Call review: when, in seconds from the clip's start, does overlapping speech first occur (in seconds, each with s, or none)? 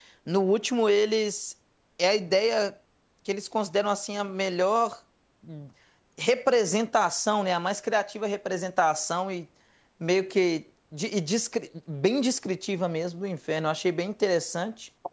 none